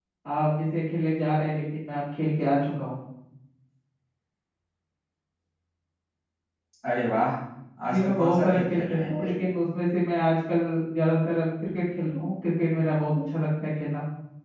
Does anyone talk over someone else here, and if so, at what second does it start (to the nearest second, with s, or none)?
8 s